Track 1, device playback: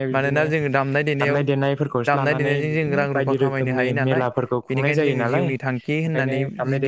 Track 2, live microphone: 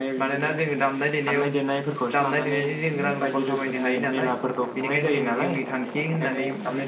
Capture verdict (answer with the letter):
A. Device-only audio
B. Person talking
A